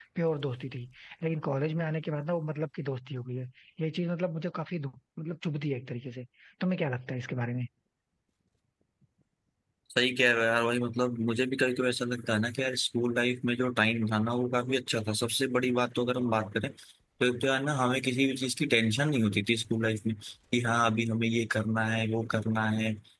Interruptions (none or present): none